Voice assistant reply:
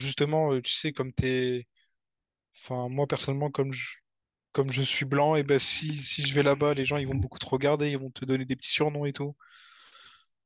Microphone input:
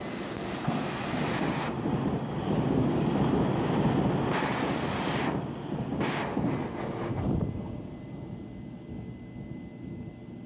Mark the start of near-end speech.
none

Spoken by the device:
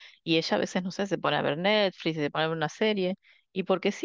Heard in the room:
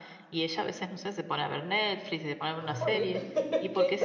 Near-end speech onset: 2.6 s

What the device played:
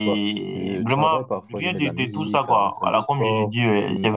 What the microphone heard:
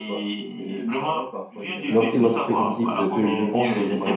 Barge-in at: 1.9 s

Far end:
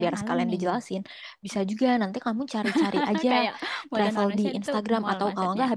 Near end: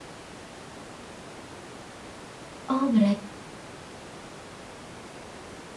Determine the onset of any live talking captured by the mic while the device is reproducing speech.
2.7 s

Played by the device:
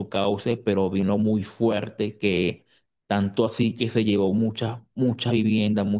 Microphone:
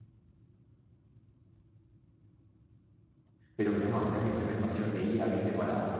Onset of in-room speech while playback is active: 3.5 s

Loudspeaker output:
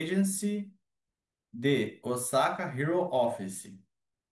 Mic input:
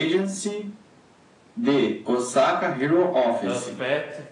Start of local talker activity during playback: 3.4 s

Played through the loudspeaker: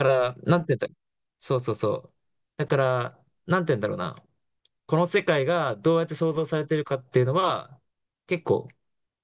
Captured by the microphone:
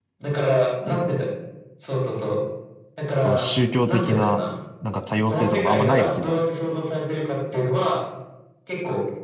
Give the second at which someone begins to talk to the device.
3.2 s

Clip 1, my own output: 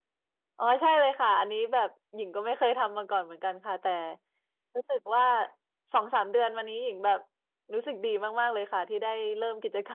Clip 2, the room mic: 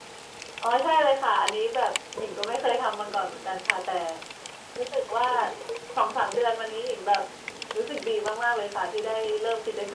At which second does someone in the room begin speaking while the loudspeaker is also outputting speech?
none

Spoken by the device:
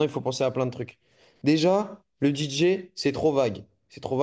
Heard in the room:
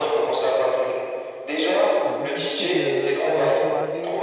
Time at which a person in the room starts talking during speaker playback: 2.0 s

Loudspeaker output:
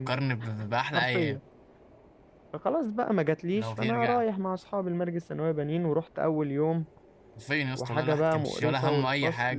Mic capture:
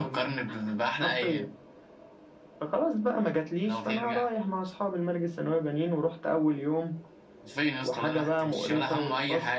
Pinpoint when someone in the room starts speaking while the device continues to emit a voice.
none

